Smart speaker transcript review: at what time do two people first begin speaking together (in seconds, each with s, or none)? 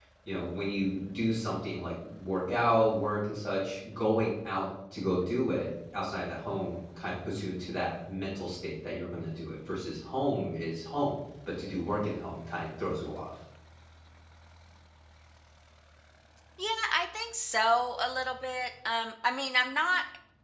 none